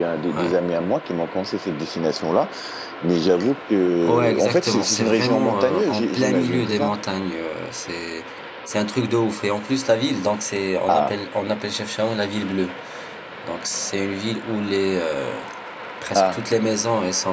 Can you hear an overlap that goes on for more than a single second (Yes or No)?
Yes